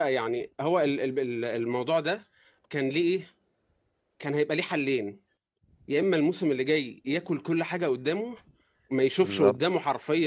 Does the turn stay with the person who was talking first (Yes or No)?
Yes